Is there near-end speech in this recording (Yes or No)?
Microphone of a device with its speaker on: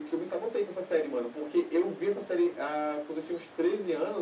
No